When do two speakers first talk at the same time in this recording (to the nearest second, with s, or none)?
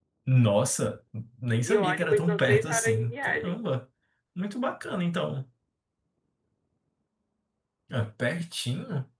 2 s